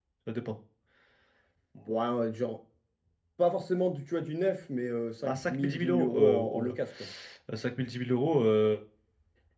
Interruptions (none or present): present